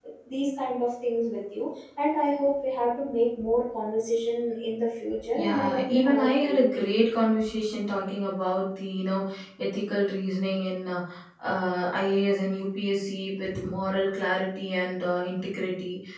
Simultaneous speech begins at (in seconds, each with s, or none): 5.4 s